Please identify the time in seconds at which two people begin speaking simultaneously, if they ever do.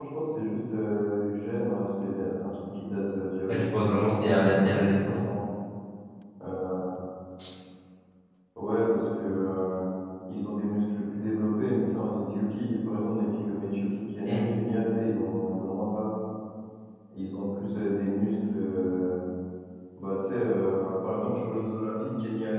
3.5 s

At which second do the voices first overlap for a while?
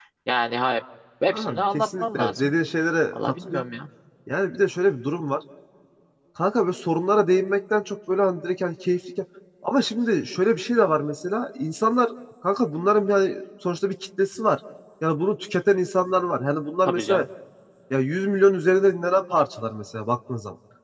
1.3 s

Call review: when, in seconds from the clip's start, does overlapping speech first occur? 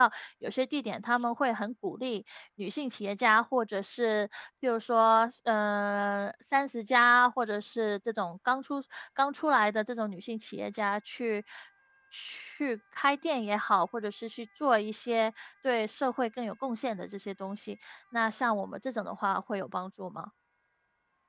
none

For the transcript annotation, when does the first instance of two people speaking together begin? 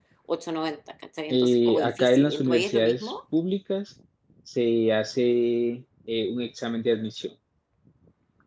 1.3 s

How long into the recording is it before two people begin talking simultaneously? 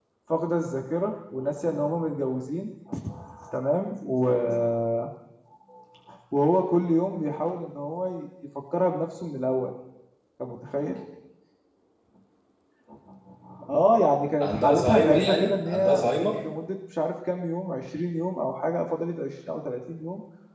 14.4 s

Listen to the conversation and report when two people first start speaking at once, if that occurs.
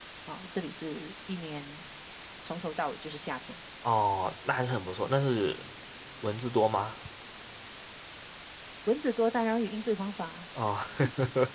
none

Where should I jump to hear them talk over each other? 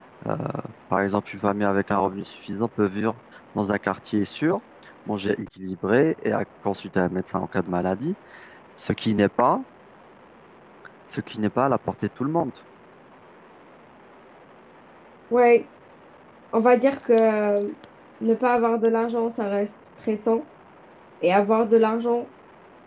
none

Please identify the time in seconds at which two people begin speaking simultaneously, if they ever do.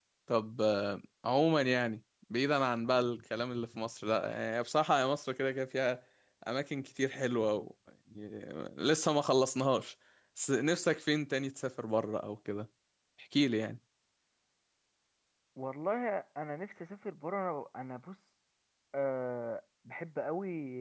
none

